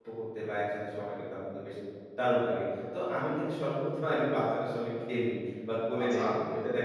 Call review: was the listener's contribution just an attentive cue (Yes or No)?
Yes